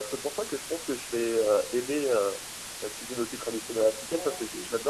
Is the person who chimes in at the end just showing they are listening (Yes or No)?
Yes